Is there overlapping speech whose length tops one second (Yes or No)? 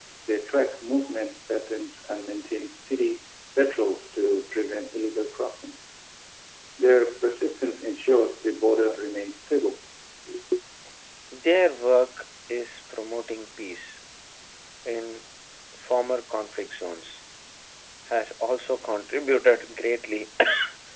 No